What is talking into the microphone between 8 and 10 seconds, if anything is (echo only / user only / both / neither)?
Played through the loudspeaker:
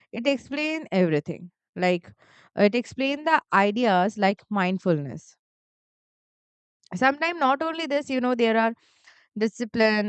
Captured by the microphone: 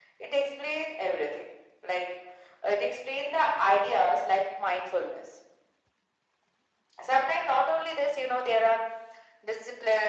echo only